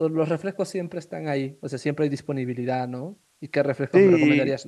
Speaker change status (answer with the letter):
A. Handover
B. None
B